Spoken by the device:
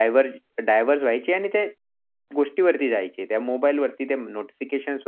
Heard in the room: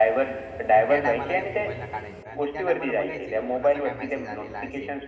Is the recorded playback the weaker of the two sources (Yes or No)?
No